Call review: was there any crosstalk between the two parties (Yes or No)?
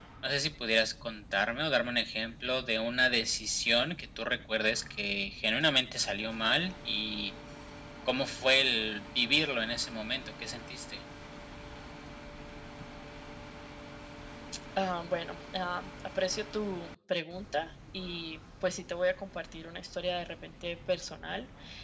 No